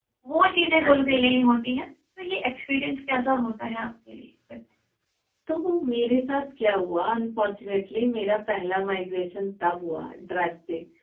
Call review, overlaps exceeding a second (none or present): none